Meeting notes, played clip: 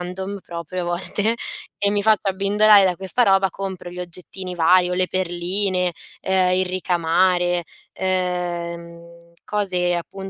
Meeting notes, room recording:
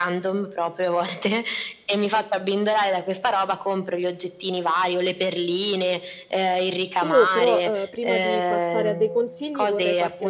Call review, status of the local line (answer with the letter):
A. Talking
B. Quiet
A